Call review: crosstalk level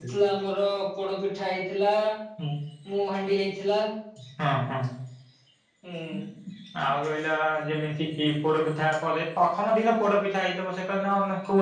none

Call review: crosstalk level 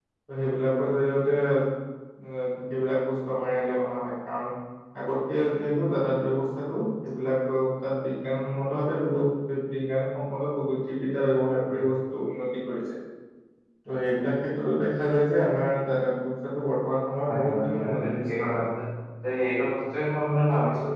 present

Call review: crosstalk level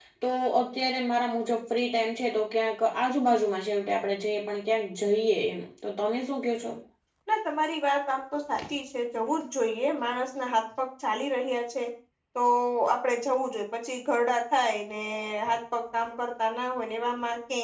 none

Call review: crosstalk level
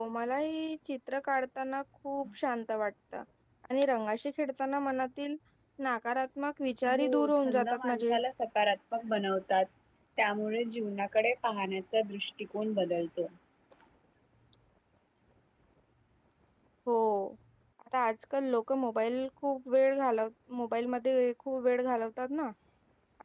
present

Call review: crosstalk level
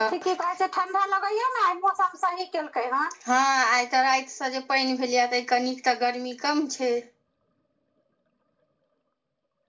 none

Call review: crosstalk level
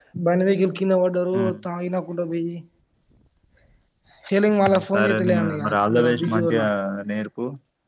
present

